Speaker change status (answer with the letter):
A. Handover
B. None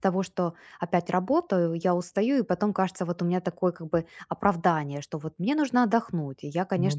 B